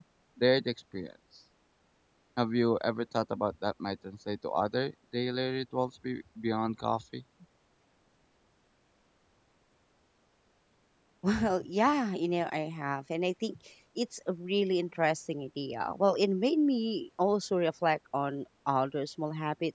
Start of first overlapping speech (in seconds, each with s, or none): none